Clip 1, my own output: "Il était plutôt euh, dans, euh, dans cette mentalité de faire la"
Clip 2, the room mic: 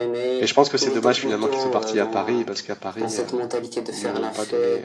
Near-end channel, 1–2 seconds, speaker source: both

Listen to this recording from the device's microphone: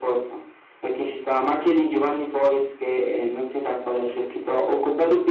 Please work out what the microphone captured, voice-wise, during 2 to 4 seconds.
echo only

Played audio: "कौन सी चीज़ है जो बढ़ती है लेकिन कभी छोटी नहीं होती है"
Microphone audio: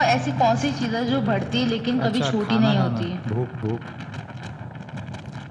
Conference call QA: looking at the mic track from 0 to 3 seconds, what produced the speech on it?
both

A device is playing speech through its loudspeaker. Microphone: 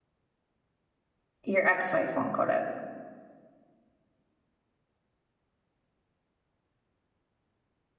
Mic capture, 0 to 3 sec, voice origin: user only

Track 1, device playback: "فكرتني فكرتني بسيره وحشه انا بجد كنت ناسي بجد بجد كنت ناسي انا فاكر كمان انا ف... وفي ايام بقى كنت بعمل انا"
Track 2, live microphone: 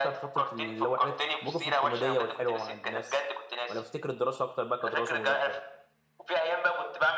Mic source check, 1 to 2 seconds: both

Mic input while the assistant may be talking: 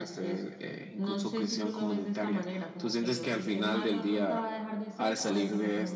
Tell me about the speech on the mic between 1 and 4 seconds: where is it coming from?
echo only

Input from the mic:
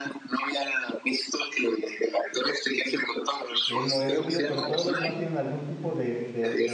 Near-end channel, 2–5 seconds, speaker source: both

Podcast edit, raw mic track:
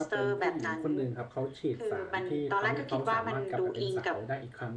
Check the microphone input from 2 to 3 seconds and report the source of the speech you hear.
both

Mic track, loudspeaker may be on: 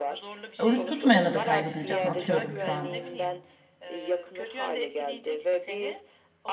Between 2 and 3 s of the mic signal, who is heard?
both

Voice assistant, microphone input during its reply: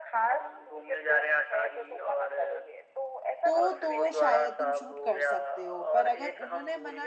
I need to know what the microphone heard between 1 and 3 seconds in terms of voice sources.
echo only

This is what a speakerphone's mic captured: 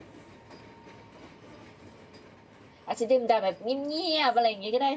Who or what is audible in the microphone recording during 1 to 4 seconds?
user only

